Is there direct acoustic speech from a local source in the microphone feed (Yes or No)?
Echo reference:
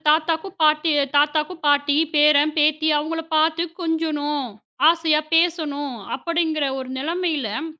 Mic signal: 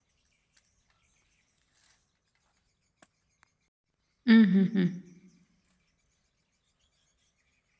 Yes